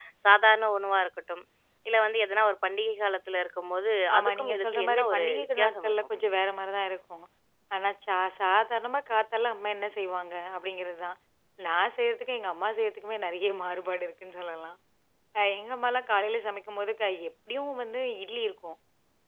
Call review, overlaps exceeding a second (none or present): present